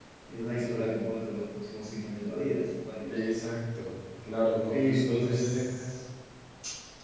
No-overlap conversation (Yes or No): No